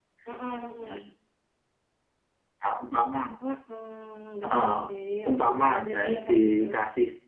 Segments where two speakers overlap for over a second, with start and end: 5.3-6.6

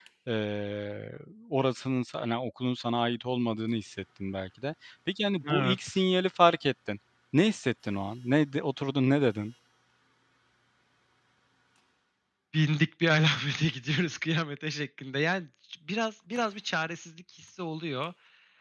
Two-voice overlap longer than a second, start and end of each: none

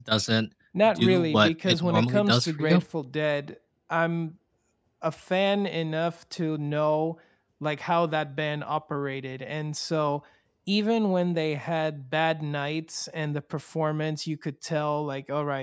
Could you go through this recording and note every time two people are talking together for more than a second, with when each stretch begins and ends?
1.0-2.8

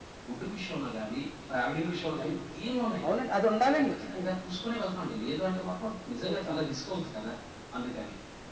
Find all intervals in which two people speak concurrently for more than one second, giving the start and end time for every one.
none

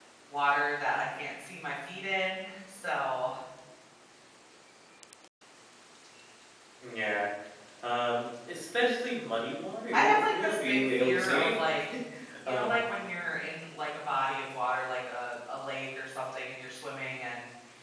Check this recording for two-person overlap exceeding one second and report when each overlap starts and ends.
9.9-11.7

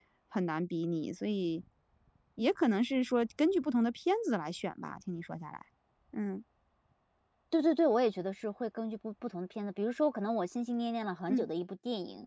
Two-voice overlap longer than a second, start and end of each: none

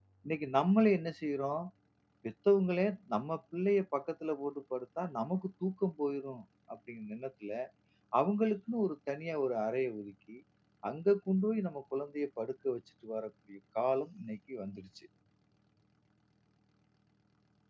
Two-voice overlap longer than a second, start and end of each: none

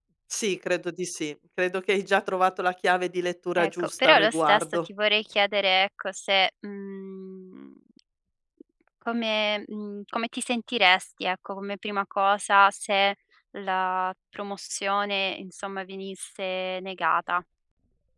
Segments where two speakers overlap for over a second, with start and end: 3.6-4.9

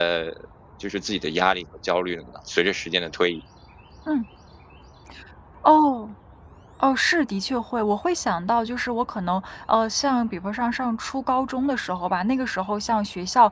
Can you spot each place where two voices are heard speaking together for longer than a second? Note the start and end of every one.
none

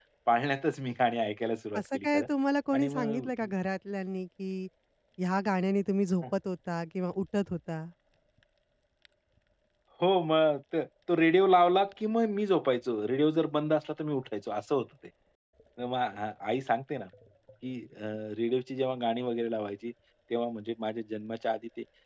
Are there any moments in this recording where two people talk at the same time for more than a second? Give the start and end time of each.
none

